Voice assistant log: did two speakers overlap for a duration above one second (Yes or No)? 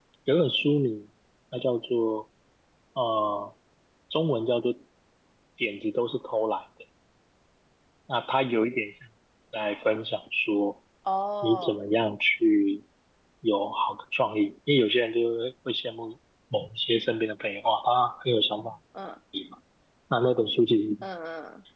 No